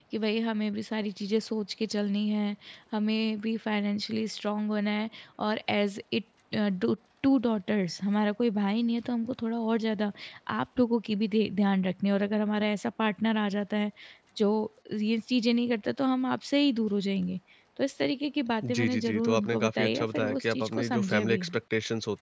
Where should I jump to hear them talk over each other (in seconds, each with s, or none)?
18.6 s